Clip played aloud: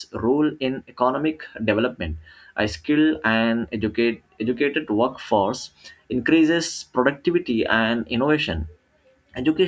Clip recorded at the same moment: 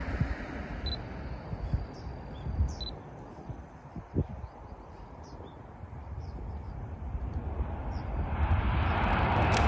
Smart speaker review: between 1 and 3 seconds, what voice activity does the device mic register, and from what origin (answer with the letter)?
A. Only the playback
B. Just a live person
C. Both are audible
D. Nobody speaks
D